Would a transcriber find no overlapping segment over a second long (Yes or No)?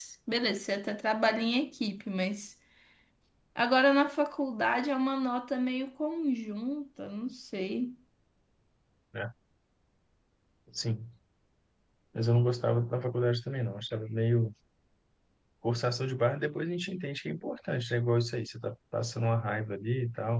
Yes